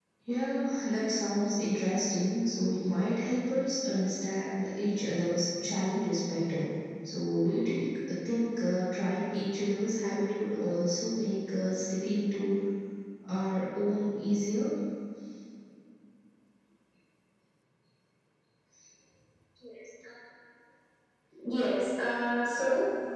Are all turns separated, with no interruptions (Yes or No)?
Yes